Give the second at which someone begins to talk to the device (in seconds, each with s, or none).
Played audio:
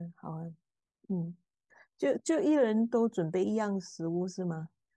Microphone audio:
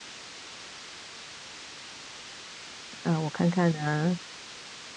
3.0 s